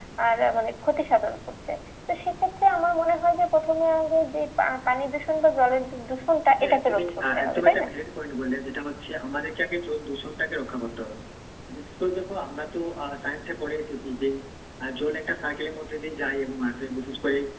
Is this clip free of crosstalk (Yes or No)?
No